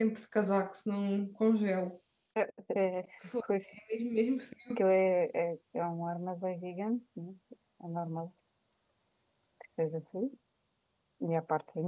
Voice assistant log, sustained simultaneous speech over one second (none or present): none